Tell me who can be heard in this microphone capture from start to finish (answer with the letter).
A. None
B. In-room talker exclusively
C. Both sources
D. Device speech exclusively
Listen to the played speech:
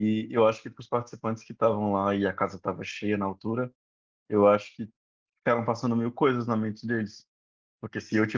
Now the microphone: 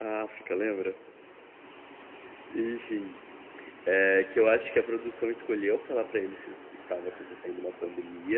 B